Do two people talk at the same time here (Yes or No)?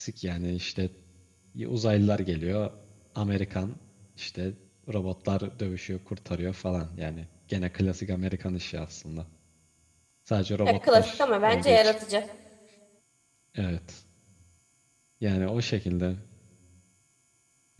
Yes